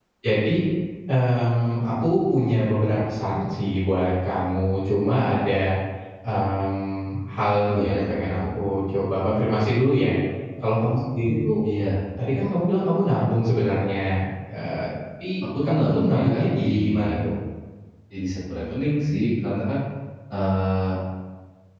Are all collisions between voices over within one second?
No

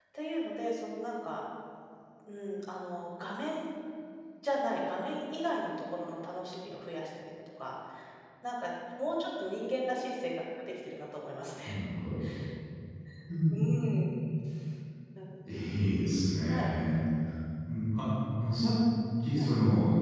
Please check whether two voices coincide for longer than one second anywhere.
No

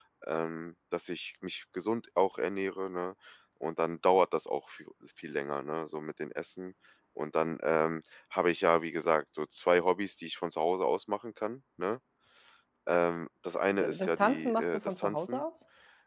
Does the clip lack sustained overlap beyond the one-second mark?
No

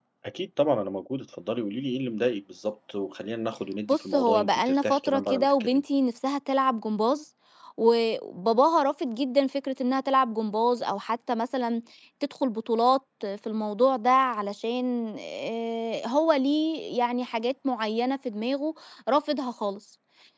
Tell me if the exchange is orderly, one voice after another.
No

